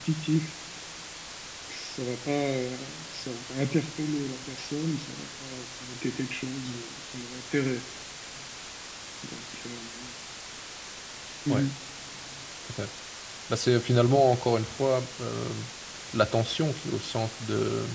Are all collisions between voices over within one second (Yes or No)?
Yes